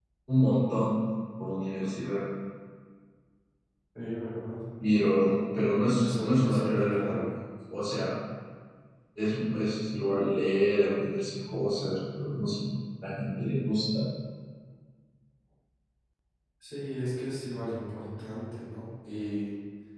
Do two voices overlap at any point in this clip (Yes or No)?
Yes